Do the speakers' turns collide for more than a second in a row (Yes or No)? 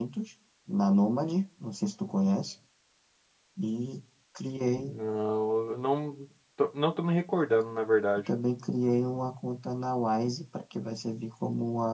No